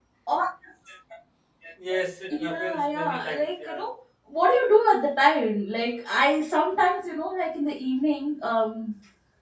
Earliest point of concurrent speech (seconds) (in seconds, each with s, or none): 2.4 s